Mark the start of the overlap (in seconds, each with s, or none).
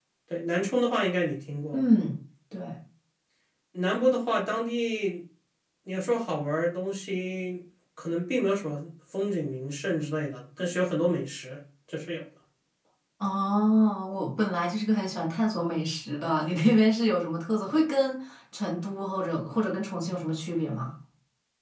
none